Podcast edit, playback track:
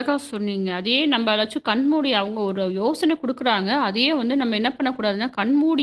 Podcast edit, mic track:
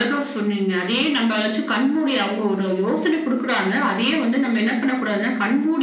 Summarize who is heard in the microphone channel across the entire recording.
echo only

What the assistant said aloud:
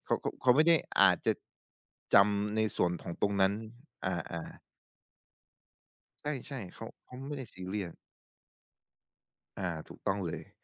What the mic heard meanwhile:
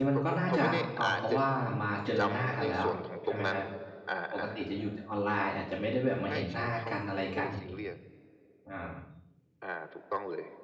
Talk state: both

